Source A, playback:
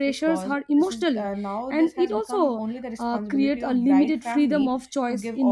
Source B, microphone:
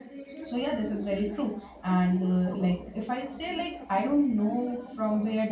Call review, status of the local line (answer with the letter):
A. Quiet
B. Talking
B